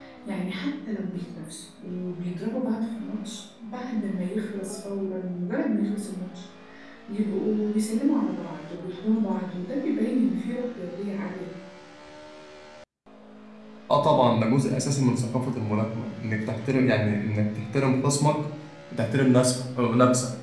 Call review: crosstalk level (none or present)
none